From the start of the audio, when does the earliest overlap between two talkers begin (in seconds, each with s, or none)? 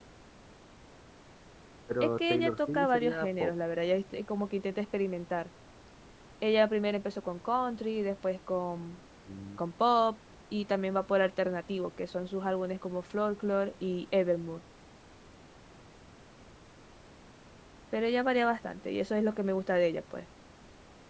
2.0 s